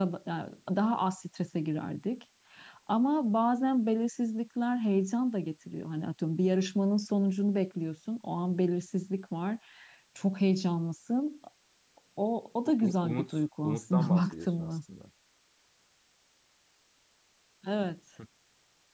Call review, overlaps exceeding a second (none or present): present